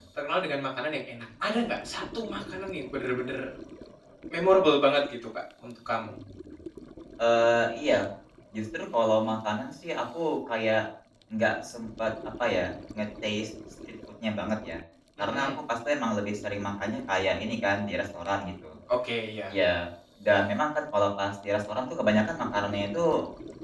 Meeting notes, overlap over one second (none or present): none